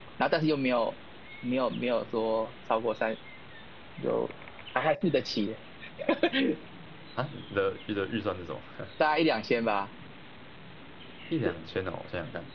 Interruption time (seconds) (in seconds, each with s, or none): none